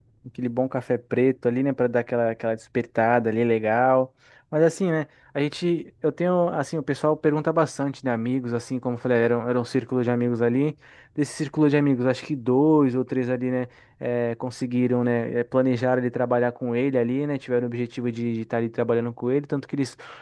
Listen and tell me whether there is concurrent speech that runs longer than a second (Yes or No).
No